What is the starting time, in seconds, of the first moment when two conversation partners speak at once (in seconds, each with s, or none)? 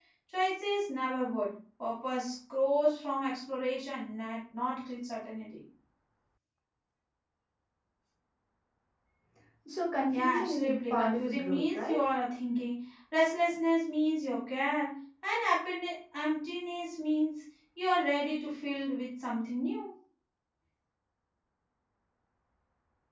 10.1 s